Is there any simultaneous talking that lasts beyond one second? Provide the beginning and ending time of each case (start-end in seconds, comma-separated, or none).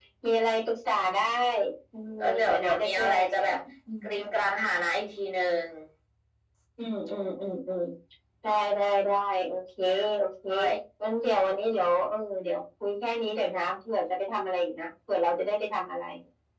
2.2-3.6